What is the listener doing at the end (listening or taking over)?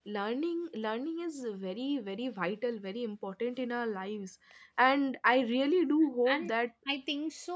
taking over